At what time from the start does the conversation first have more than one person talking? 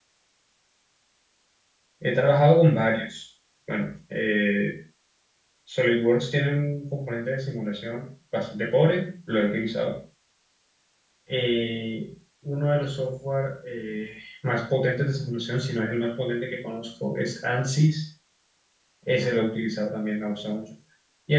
none

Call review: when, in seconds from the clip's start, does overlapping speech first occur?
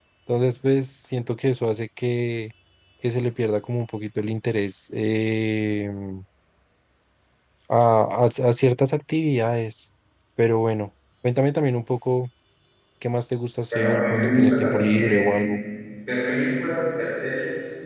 13.7 s

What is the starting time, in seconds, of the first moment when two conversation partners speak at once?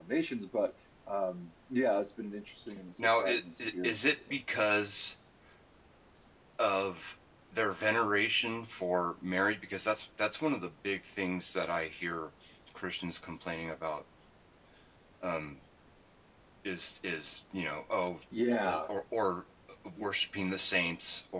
3.0 s

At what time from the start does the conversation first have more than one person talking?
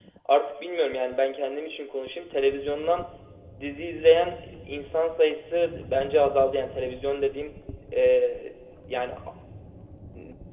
none

